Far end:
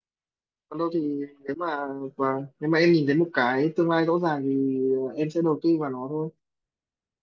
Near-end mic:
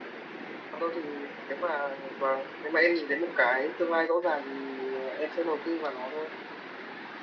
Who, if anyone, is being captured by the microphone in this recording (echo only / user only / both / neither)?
echo only